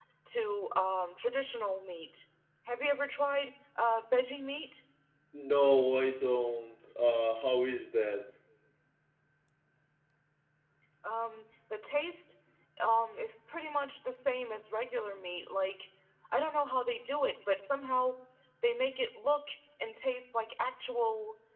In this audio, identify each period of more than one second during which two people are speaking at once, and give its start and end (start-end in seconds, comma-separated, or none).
none